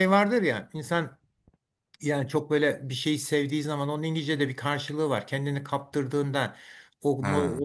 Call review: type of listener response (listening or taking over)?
listening